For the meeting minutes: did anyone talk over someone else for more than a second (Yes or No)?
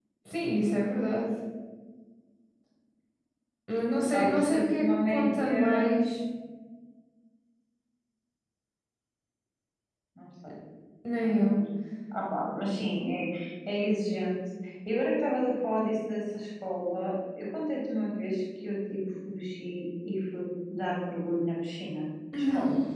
Yes